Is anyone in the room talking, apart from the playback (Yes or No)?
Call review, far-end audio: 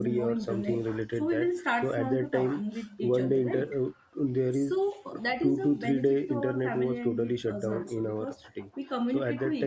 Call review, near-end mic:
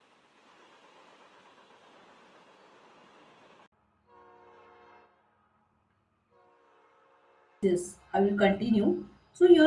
Yes